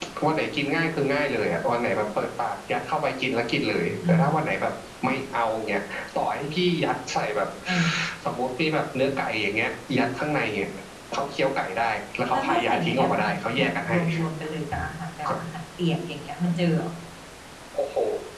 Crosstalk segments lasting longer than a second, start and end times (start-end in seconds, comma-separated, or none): 12.3-14.0